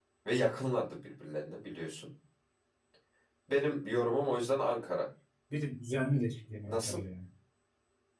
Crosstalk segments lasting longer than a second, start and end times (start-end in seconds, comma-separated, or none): none